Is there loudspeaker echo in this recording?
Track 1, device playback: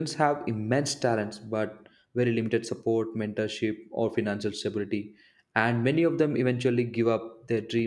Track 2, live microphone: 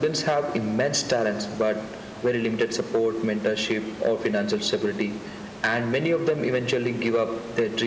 Yes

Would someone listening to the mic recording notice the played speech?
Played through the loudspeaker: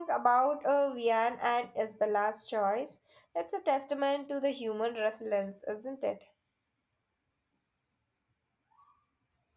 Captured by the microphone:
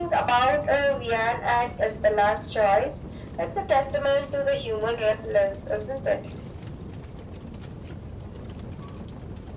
Yes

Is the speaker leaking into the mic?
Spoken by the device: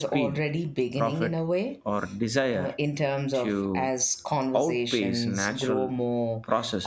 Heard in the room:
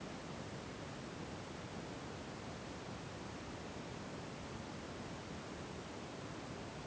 No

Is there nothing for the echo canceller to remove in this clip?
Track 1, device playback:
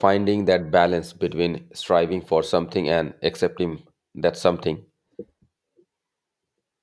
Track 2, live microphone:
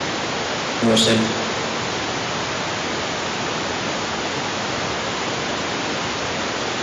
Yes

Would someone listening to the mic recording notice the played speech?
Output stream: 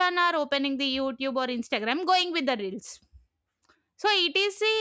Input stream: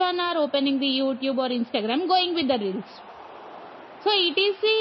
Yes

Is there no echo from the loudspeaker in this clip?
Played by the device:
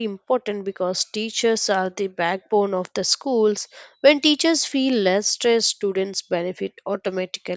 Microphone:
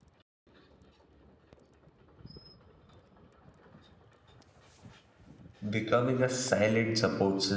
Yes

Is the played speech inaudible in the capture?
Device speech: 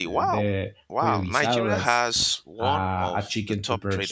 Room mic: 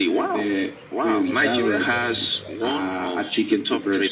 No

